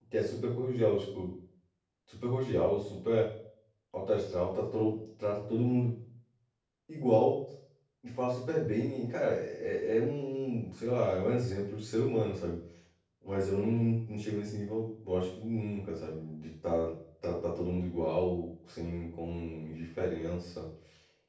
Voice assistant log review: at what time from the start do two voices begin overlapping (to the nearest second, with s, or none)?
none